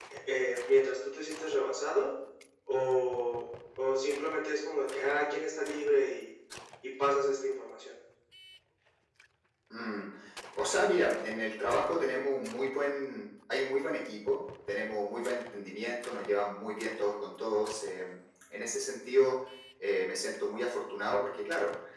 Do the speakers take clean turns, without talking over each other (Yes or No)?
Yes